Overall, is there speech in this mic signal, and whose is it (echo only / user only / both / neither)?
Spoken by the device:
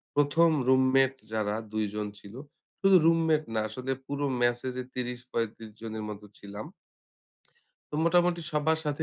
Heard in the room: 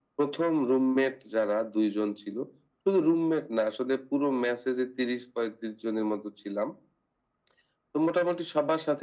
echo only